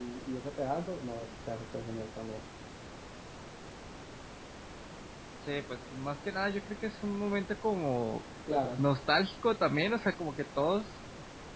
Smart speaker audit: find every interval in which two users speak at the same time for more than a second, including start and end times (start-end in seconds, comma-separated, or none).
none